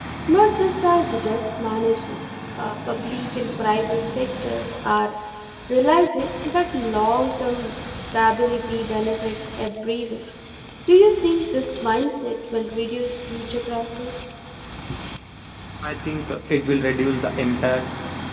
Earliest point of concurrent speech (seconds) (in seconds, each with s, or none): none